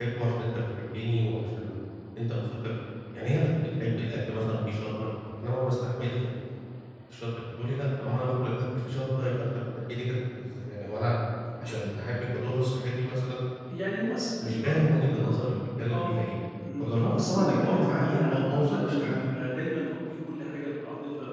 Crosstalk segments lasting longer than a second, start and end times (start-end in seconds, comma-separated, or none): 16.8-19.2